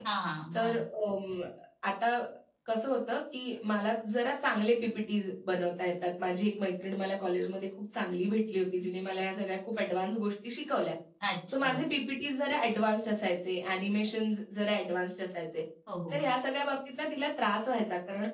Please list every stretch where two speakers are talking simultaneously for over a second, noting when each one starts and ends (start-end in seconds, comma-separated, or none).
none